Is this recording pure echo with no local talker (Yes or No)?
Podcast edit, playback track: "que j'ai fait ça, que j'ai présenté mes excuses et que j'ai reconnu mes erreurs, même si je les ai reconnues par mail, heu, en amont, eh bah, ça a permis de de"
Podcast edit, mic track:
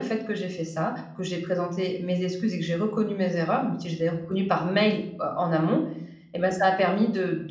Yes